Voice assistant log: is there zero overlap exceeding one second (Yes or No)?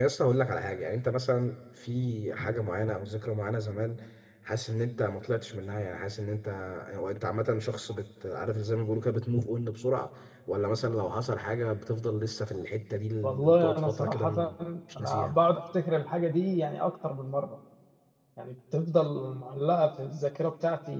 No